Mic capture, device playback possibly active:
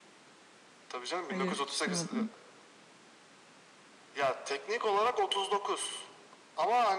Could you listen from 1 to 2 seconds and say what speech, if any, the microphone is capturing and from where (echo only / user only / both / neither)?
both